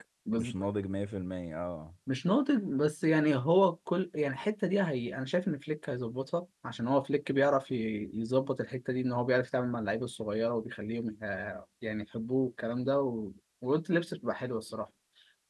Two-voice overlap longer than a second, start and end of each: none

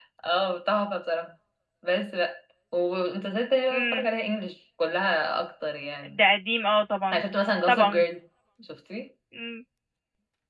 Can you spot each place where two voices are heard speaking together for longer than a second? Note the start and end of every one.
none

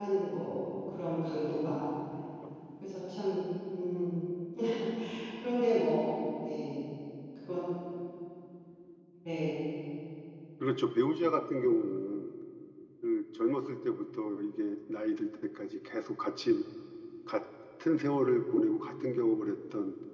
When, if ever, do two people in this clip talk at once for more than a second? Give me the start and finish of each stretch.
none

